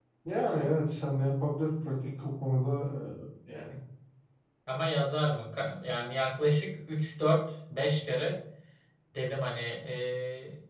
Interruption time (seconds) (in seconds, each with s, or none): none